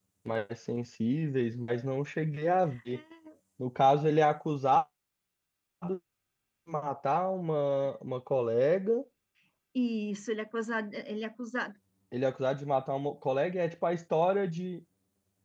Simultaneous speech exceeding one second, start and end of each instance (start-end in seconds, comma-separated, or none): none